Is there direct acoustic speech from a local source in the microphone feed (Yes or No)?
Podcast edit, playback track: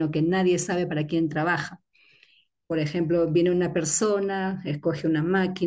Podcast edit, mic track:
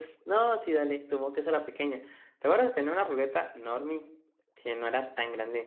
Yes